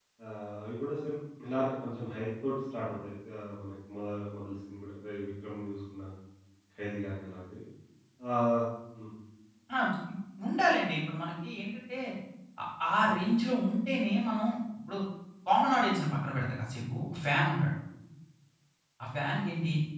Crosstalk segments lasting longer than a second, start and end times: none

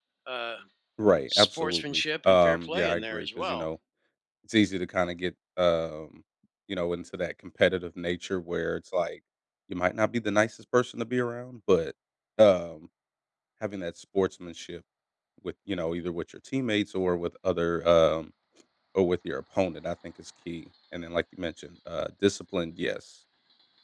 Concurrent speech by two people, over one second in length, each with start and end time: 1.3-3.7

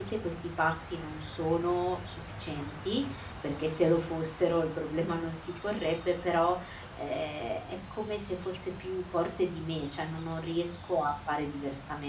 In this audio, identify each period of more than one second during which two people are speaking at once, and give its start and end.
none

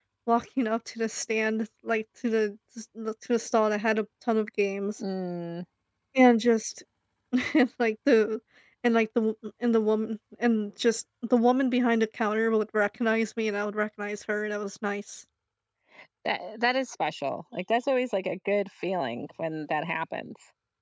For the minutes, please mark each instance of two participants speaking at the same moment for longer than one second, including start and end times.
none

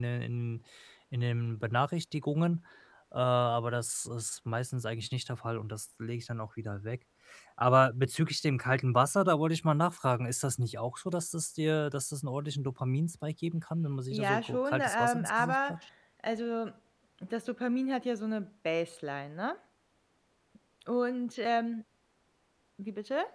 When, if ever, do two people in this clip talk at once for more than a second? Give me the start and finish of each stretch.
14.1-15.8

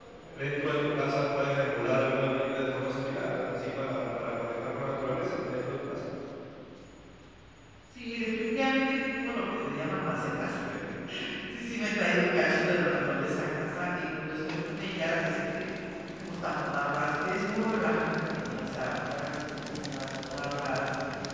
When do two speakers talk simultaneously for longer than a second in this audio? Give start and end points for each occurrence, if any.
none

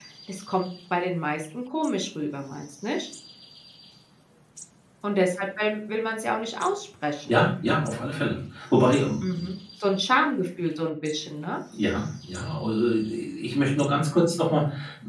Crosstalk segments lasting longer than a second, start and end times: none

